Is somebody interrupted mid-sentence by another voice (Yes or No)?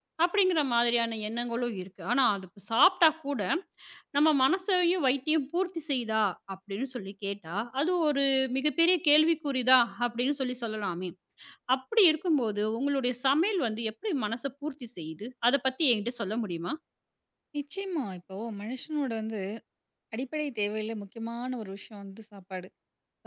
No